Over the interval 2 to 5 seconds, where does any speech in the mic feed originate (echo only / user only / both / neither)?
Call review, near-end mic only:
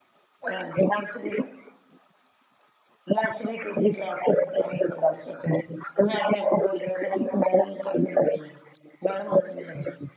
echo only